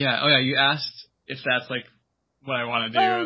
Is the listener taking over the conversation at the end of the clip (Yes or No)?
Yes